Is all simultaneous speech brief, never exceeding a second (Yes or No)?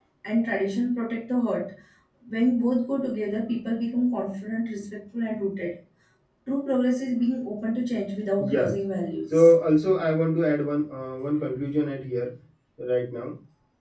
Yes